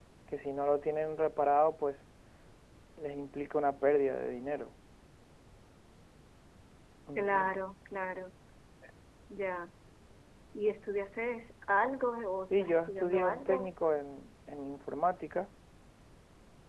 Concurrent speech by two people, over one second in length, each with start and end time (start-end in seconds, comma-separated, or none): 12.5-13.7